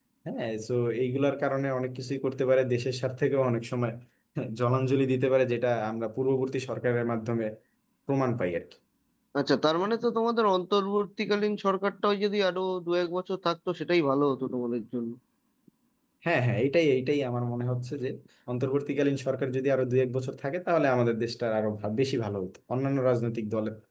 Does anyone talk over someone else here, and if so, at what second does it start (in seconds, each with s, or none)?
none